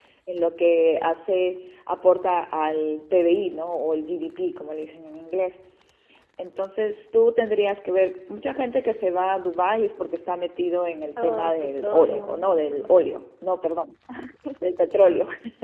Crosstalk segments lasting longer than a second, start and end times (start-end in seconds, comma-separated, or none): 11.2-12.9